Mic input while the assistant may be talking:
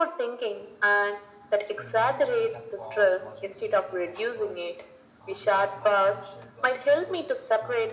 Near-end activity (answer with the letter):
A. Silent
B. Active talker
B